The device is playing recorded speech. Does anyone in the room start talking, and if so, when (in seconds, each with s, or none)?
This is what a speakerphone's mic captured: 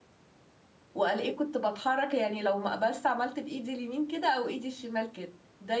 0.9 s